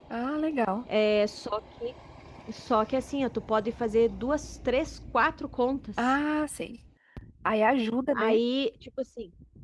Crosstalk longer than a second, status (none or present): none